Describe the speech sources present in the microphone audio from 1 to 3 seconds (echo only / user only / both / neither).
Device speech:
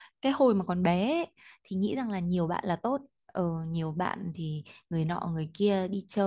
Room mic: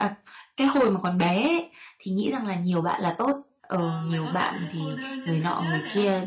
echo only